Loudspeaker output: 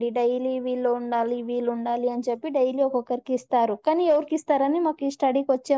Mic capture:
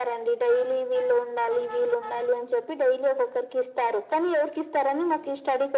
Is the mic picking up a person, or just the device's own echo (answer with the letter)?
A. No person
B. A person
A